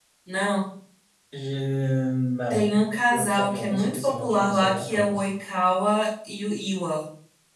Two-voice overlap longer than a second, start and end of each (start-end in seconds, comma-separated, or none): 2.5-5.2